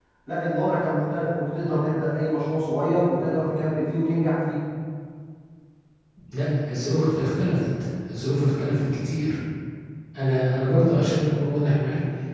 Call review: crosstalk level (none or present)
none